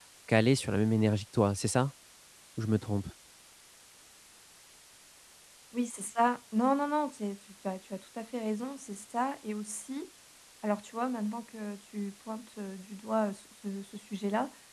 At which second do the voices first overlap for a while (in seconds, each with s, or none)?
none